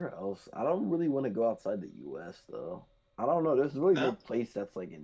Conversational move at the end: listening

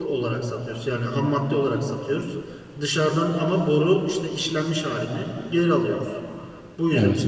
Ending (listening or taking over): listening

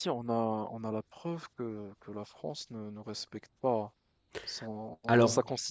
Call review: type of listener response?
listening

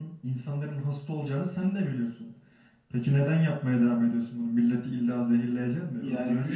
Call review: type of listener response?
taking over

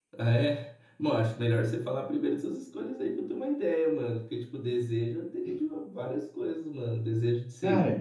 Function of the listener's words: listening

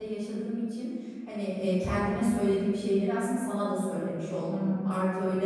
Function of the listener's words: listening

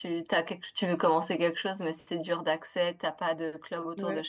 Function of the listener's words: taking over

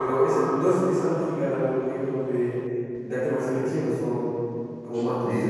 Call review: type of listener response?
taking over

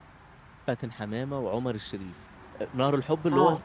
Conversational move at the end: listening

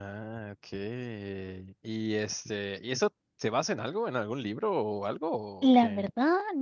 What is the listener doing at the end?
taking over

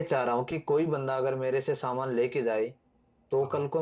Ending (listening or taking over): listening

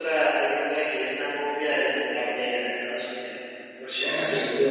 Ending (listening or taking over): taking over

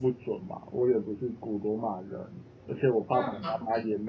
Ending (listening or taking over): listening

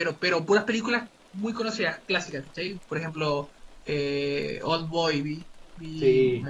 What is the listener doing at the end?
listening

